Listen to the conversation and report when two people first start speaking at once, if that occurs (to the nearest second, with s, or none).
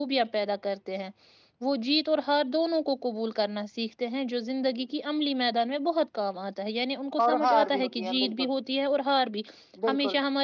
7 s